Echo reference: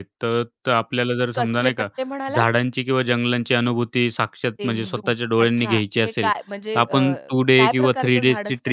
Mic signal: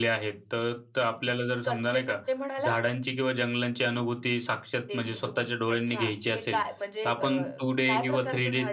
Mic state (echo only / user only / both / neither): echo only